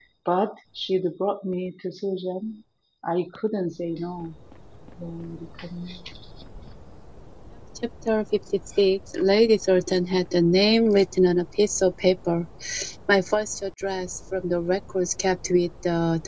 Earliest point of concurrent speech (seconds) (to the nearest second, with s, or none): none